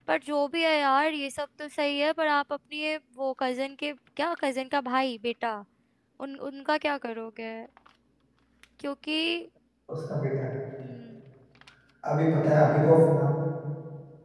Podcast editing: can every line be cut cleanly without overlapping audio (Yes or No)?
Yes